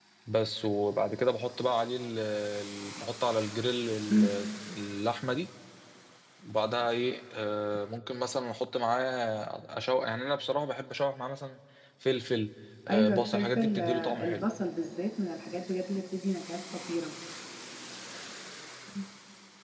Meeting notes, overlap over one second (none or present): present